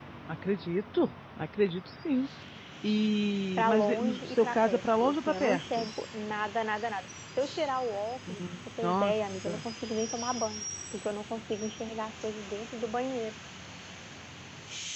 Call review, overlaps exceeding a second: present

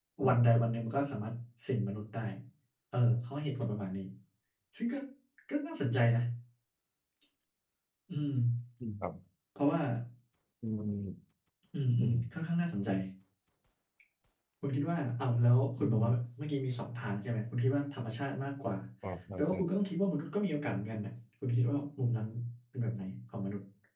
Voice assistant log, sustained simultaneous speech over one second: none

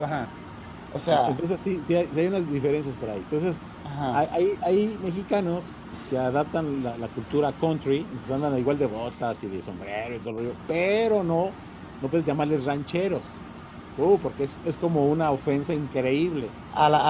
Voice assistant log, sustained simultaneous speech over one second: none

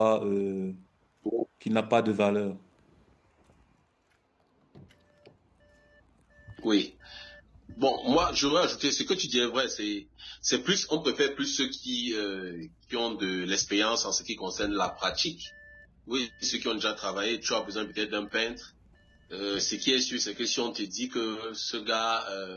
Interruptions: none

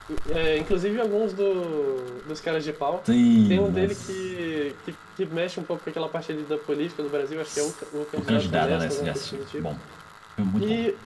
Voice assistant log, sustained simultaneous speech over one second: present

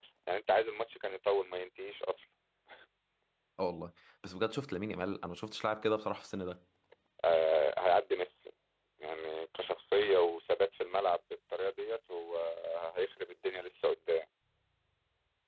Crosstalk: none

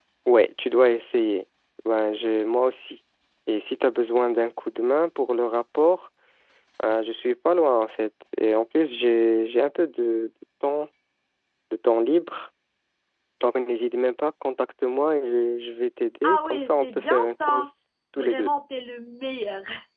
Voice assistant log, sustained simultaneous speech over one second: present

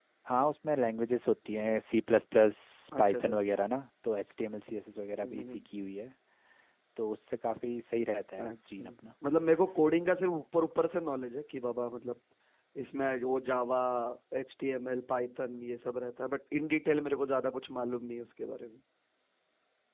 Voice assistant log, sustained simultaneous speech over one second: none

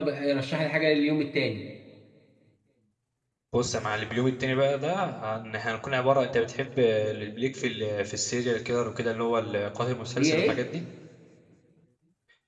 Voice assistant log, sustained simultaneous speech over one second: none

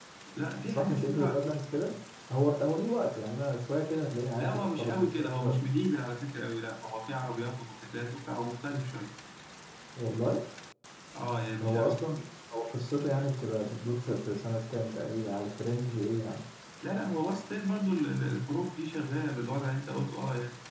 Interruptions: present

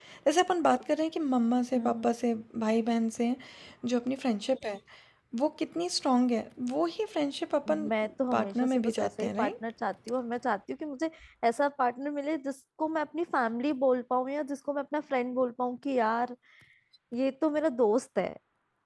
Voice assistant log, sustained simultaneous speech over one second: present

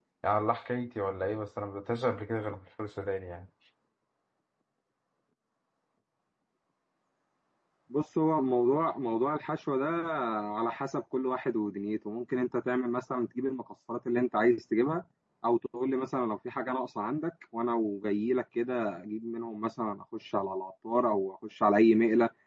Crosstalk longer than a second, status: none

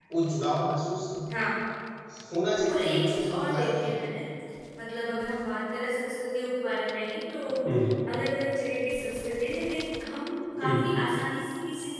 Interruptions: present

